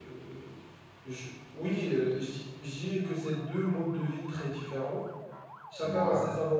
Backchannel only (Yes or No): Yes